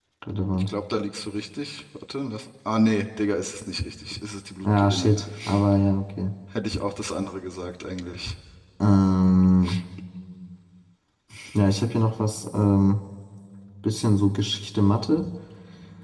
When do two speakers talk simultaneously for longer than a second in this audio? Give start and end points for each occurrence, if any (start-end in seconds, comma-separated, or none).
none